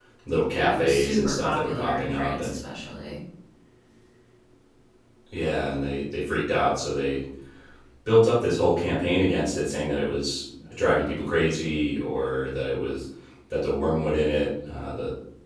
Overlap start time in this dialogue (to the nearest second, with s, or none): 1 s